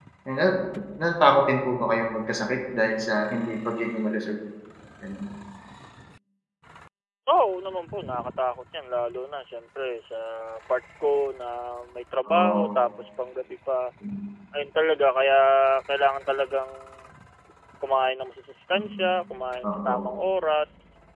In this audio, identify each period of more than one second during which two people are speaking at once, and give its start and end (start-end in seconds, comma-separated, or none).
none